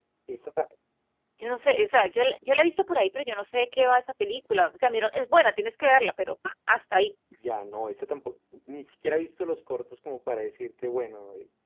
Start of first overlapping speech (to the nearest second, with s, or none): none